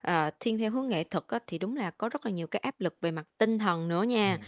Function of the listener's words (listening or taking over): listening